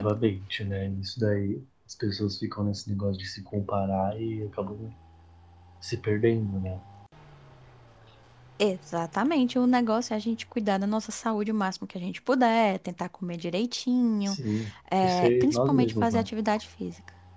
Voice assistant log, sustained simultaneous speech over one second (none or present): present